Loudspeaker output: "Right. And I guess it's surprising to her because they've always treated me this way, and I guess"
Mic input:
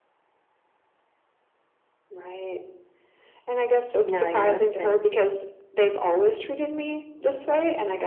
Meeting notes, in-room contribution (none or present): present